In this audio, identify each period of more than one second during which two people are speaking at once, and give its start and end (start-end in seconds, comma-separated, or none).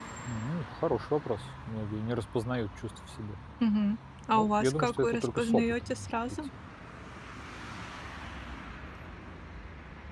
4.3-6.4